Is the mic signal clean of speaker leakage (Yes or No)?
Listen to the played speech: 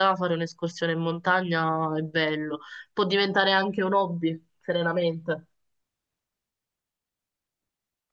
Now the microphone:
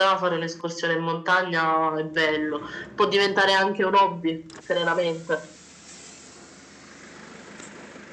No